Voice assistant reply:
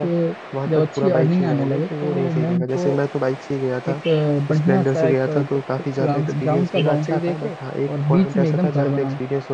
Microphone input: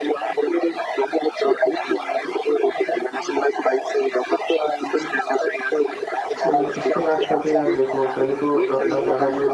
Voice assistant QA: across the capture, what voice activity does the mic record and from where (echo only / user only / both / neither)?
both